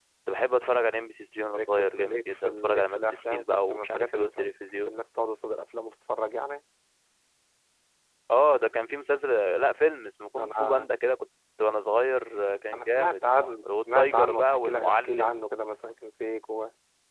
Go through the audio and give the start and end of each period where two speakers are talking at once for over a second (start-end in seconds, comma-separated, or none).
1.6-5.0, 13.6-15.4